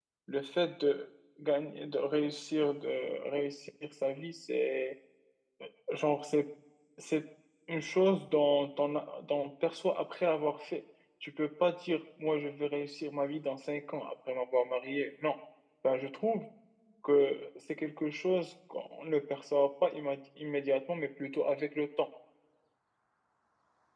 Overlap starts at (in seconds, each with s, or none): none